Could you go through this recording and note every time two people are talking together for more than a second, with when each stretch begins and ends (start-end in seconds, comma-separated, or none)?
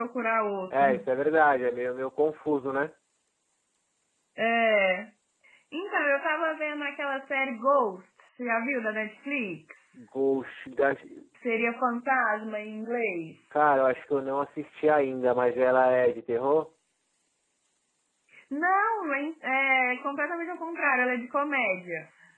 none